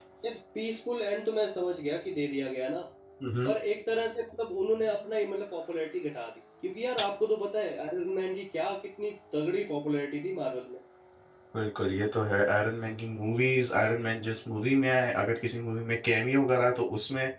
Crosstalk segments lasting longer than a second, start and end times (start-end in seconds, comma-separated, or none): none